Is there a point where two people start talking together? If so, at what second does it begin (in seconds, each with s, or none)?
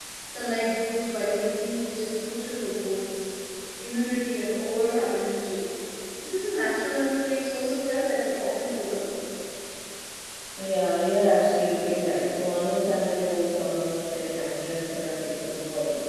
none